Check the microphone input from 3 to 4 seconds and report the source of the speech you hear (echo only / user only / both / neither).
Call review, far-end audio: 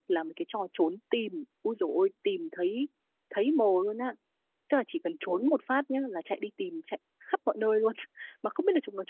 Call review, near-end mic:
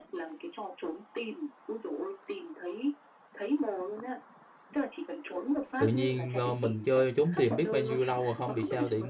echo only